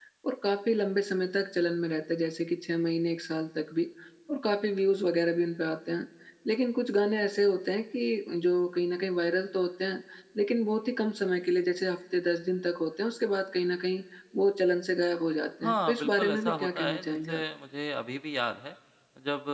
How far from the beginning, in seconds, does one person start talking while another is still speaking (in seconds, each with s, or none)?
15.6 s